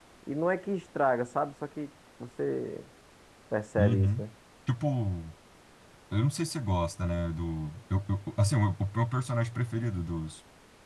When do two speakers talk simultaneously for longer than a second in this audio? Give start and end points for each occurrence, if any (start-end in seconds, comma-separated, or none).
none